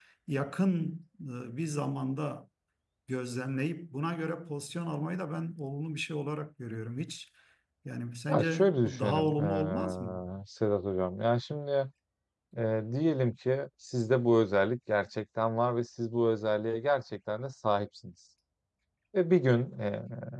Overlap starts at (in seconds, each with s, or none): 8.3 s